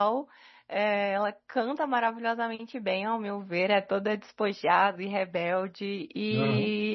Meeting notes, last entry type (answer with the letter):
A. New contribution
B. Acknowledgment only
B